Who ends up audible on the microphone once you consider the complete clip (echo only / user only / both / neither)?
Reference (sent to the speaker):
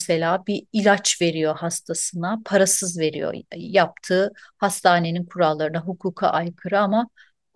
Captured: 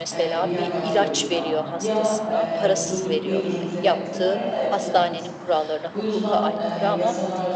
both